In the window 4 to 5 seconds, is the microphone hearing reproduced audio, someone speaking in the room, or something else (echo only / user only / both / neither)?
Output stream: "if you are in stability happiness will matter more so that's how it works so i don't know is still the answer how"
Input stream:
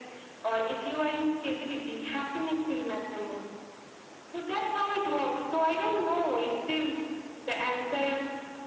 echo only